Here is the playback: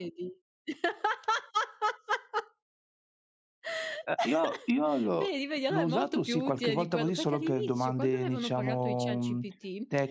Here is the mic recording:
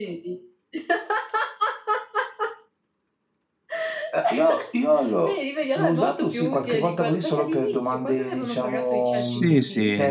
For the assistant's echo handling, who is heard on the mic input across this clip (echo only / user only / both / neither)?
both